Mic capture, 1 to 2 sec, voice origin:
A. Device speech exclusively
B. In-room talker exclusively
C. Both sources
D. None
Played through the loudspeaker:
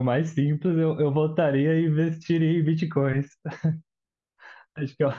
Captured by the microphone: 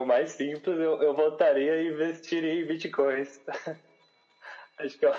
A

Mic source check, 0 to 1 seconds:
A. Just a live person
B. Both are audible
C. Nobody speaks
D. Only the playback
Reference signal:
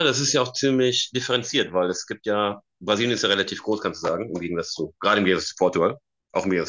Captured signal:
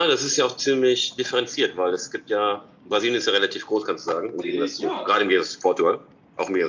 D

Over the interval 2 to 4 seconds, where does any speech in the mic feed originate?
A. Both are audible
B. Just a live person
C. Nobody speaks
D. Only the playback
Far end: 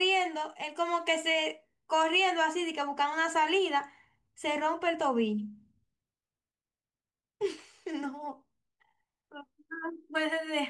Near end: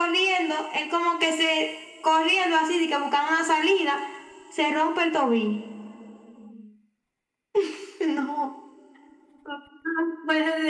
D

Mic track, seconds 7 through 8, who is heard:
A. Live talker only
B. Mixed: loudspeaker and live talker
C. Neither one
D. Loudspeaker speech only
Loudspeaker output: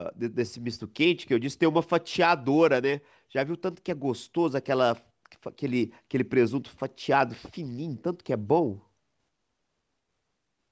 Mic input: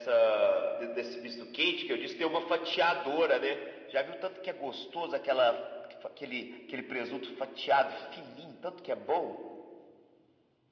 D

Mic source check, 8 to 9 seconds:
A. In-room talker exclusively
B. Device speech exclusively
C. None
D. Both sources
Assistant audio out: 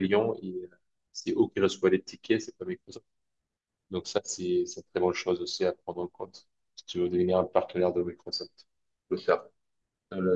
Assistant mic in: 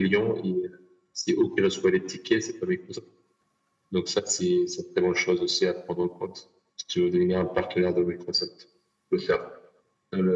B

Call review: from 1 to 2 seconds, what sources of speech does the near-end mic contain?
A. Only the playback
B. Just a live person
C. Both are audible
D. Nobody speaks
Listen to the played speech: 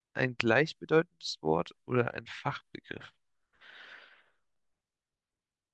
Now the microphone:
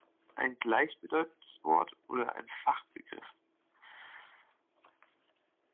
A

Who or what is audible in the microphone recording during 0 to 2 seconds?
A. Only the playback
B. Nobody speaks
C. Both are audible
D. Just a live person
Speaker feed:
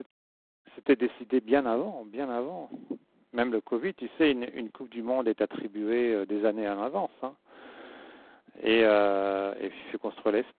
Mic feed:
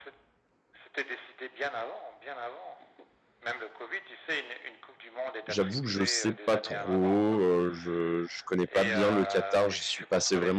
A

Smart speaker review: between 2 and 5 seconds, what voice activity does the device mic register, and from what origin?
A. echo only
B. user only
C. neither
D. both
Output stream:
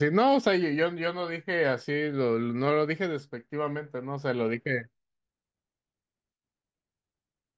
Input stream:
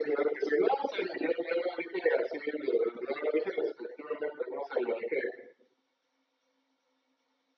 A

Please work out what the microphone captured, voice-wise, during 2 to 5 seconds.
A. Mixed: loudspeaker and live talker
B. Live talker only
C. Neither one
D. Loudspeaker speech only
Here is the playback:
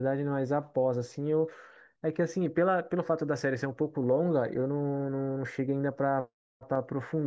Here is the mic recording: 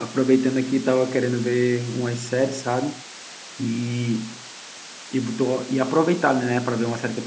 B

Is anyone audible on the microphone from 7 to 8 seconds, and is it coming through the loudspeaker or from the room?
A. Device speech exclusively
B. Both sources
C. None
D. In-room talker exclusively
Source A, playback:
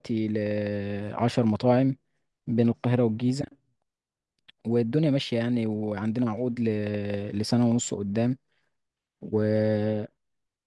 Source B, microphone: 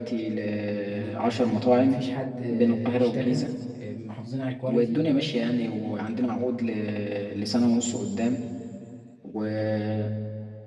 A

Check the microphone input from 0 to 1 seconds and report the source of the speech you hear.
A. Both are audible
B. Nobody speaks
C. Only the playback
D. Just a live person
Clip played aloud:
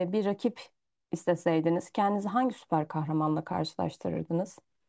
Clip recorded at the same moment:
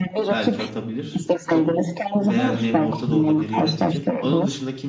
A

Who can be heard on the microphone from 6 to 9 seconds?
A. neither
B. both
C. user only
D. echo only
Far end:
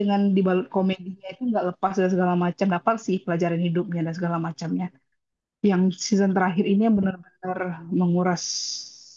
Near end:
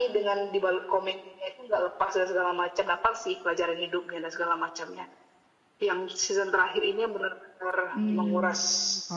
B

